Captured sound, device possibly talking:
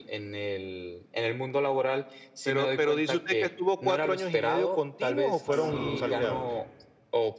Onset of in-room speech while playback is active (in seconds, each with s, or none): 5.5 s